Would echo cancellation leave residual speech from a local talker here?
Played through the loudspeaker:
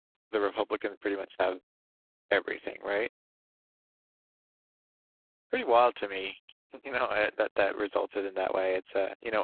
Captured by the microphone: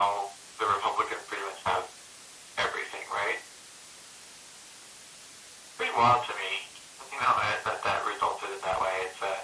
No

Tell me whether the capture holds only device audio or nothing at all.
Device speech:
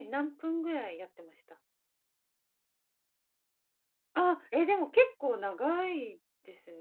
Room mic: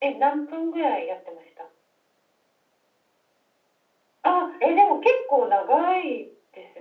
Yes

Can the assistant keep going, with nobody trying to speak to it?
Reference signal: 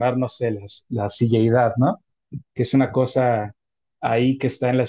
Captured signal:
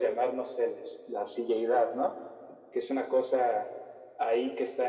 Yes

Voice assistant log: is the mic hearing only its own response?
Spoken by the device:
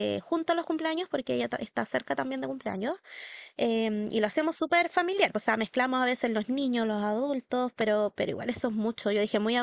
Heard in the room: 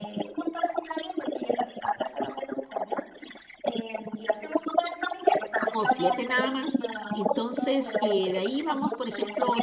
No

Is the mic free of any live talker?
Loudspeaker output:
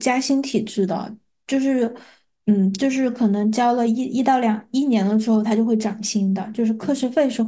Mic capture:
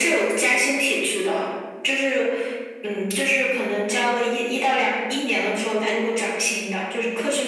Yes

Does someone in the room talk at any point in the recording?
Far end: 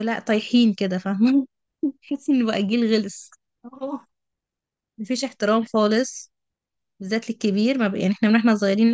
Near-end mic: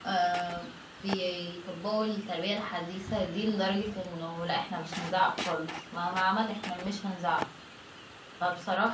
Yes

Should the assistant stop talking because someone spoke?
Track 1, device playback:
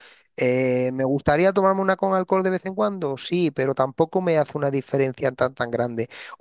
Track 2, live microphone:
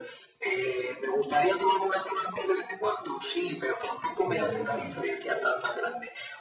Yes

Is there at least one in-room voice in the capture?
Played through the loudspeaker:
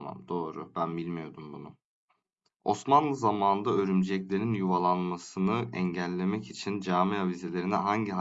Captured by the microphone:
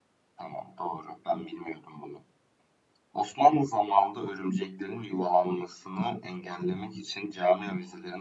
No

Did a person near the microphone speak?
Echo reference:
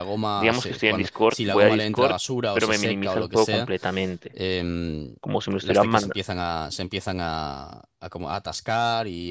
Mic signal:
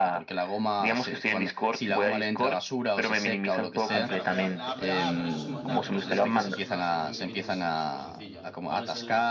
Yes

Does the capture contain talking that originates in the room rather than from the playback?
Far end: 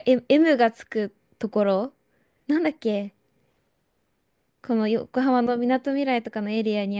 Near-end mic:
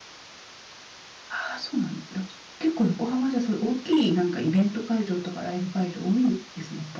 Yes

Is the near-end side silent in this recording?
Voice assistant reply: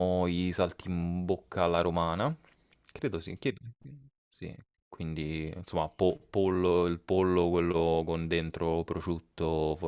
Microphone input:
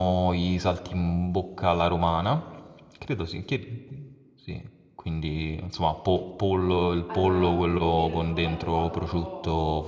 No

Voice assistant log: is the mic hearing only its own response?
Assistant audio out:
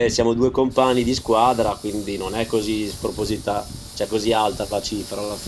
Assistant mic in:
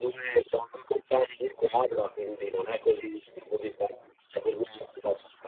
Yes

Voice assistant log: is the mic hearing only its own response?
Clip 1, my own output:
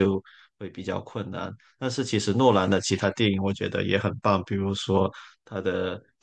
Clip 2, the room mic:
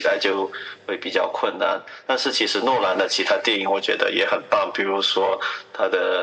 Yes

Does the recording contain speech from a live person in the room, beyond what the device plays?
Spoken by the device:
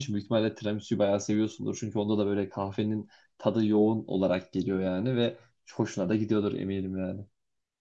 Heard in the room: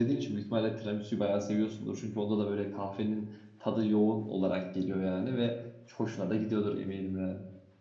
No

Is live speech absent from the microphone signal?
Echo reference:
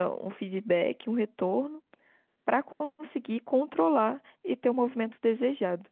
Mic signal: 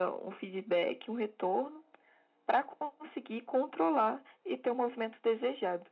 Yes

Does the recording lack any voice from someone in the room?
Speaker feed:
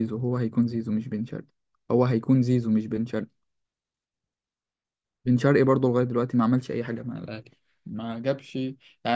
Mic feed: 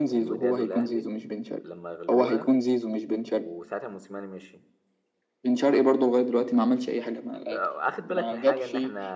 No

